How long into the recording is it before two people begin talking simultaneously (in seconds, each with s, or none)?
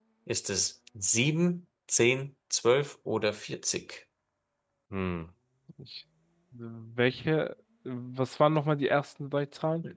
none